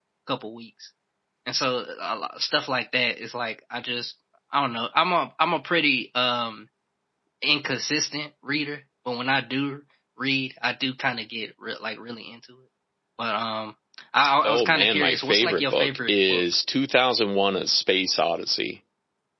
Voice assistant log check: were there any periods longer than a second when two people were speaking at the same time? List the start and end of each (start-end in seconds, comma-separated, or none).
14.4-16.4